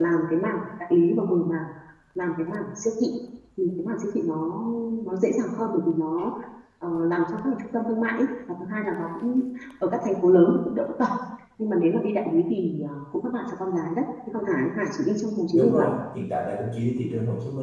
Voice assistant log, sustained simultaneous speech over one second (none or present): none